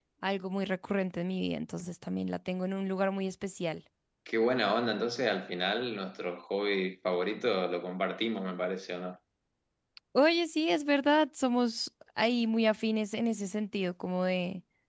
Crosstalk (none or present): none